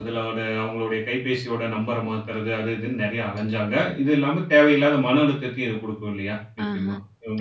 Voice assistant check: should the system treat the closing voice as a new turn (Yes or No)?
Yes